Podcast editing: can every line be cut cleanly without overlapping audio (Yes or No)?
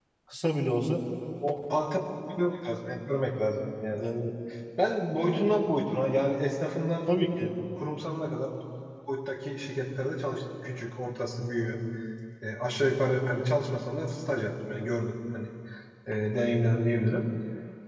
Yes